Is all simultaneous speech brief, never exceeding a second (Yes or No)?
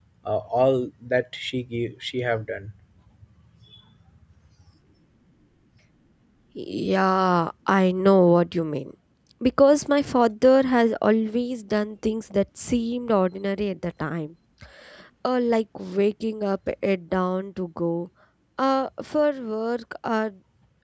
Yes